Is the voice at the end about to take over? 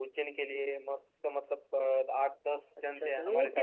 Yes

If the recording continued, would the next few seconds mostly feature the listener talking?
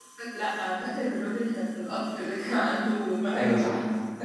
Yes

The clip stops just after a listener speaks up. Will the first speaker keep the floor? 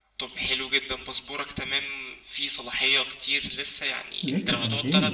Yes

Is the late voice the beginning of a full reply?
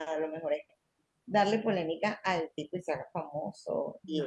No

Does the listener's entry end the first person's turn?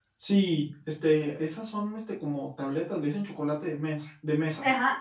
Yes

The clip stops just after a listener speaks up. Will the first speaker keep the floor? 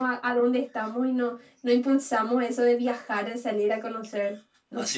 No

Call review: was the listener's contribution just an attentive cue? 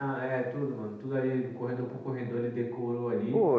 No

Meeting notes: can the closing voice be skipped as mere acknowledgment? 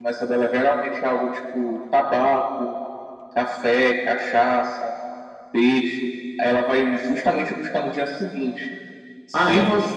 Yes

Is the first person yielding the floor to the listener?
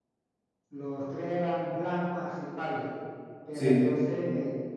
No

